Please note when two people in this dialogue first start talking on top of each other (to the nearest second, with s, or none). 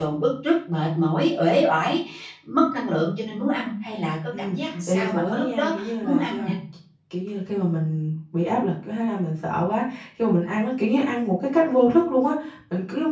4 s